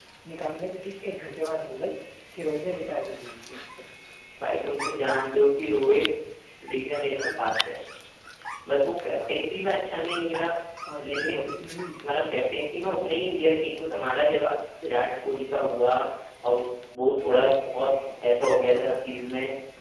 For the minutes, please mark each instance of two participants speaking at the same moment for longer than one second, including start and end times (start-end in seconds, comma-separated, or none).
none